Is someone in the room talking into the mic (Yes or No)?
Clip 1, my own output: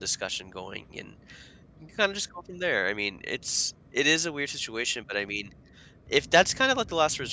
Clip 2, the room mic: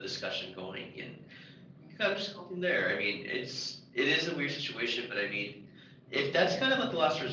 No